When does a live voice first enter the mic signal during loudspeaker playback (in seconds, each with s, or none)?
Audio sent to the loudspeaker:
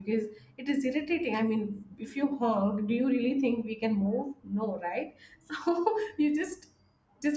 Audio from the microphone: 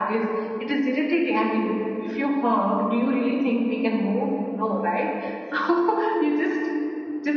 none